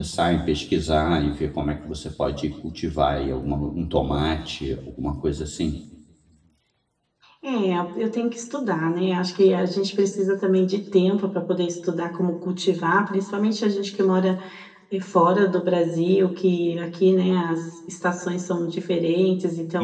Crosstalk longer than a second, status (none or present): none